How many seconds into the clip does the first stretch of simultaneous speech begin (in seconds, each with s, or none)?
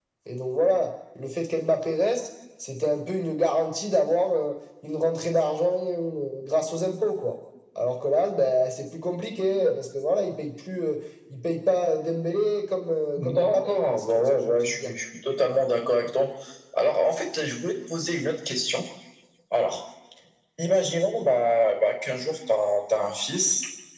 13.2 s